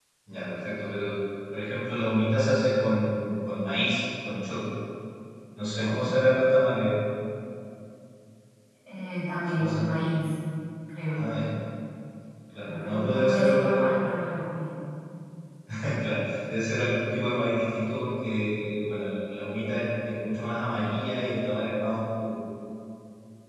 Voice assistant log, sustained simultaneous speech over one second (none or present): present